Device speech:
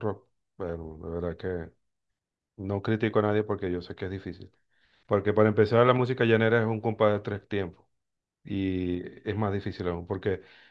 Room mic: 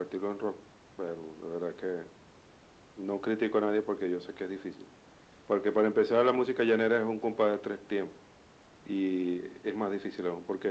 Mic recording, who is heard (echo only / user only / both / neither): echo only